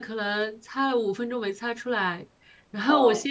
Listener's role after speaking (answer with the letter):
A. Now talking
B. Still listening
B